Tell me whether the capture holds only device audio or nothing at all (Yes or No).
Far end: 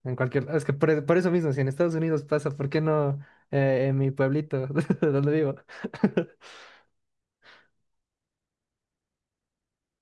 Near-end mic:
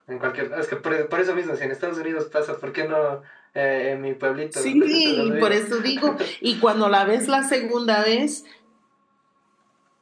No